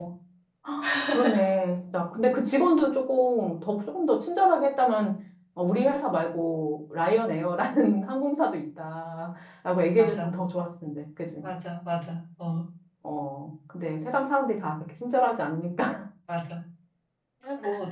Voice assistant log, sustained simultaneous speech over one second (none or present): none